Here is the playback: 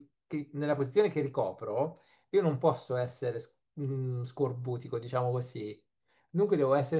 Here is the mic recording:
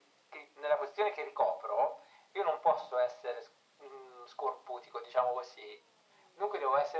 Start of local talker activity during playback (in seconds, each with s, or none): none